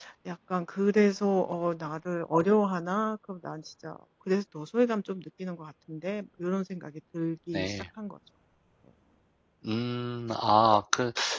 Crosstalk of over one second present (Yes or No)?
No